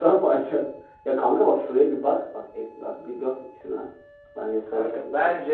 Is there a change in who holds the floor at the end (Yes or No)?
Yes